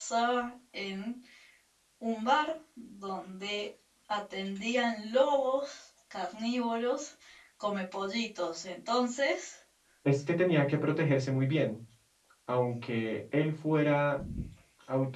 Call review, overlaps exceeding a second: none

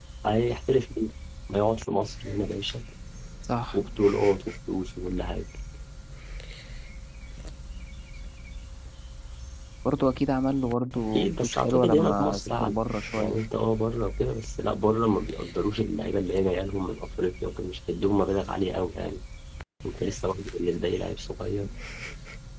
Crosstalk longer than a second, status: present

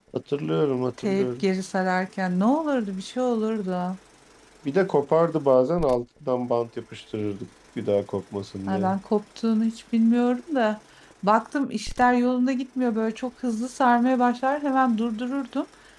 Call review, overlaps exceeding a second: none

